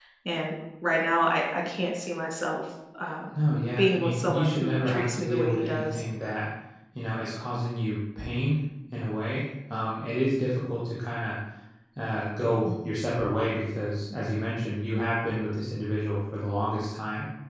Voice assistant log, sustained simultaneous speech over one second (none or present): present